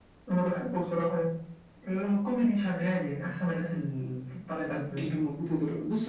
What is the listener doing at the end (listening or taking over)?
taking over